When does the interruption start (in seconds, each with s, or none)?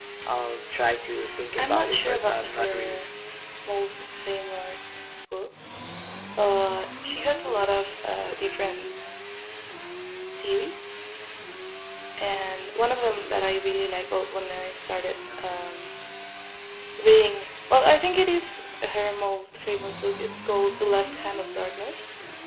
1.6 s